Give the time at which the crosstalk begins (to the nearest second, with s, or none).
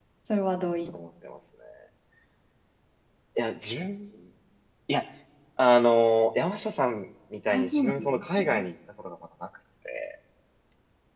7 s